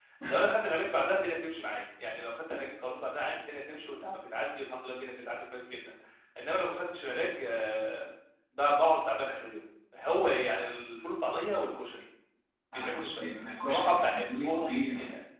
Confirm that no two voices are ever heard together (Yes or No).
No